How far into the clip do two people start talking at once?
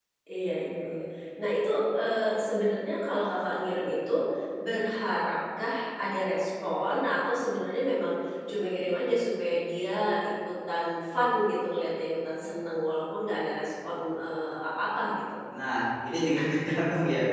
none

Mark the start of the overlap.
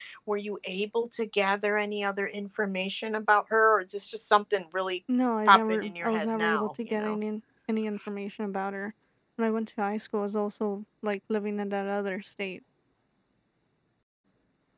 5 s

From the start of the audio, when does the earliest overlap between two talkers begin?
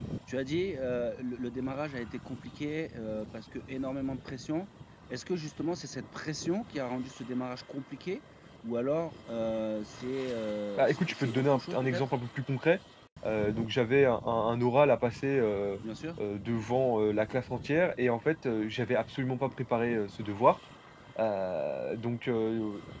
11 s

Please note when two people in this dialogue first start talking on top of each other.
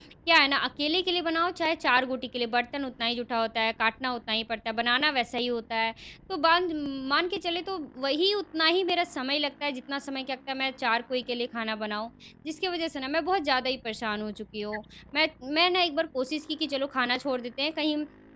none

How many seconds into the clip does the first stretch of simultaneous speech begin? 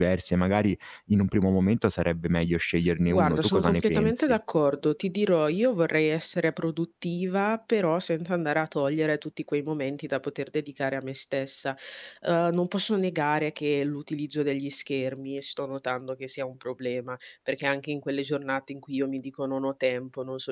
3 s

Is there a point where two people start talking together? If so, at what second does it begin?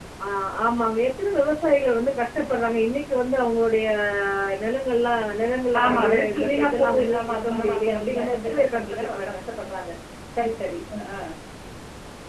6 s

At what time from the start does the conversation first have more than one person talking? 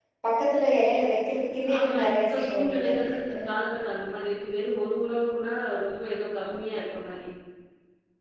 2 s

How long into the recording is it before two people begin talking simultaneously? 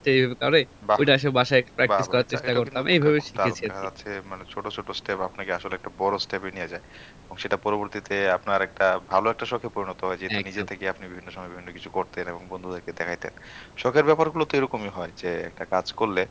2 s

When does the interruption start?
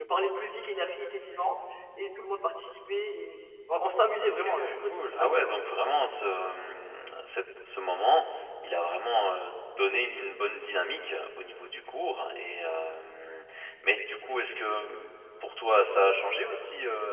4 s

